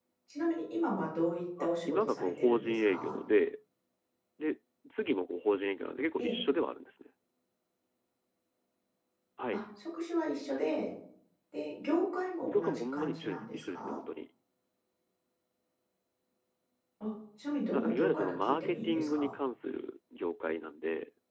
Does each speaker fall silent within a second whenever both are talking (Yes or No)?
No